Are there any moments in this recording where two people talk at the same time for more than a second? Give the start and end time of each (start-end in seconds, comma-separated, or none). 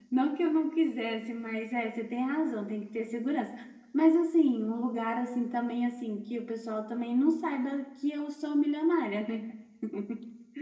none